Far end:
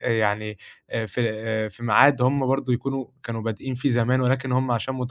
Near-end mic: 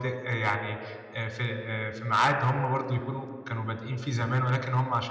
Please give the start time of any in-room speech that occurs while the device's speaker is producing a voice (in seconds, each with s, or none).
none